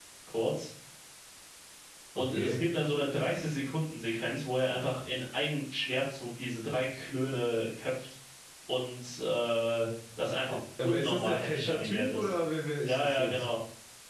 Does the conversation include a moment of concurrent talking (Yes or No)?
Yes